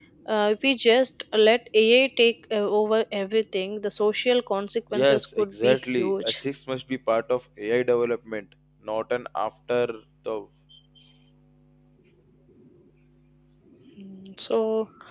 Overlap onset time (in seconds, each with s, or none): 4.9 s